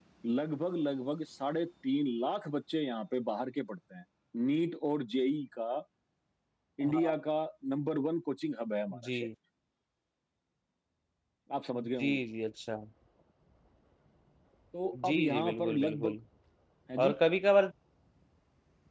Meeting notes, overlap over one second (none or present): present